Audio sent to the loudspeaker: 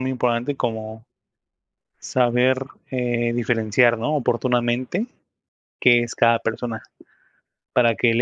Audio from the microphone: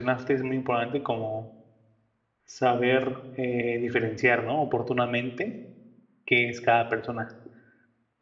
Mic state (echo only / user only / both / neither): echo only